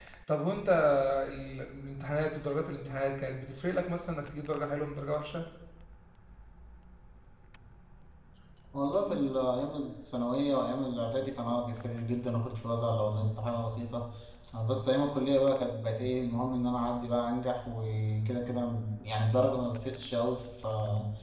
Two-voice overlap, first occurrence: none

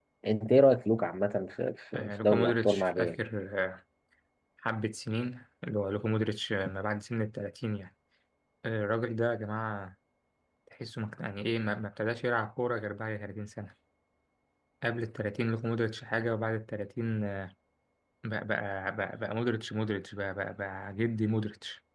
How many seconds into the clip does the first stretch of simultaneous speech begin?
1.9 s

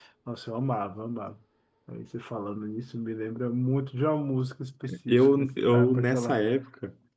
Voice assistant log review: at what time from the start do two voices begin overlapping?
4.9 s

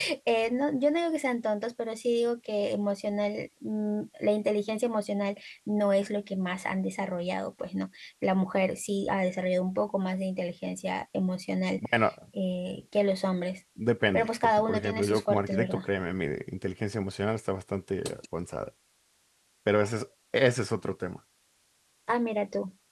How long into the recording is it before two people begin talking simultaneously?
14.1 s

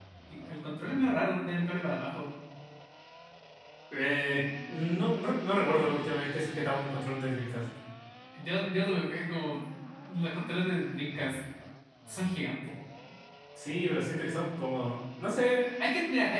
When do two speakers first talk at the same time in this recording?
none

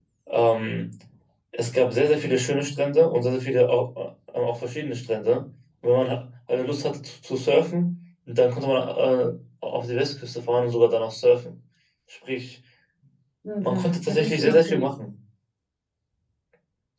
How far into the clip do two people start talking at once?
13.6 s

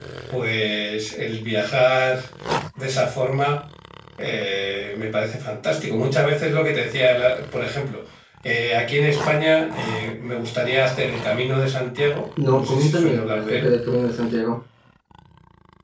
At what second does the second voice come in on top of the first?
12.4 s

